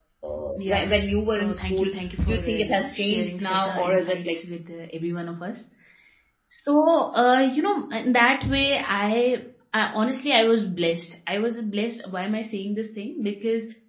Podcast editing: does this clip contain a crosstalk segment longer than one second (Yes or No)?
Yes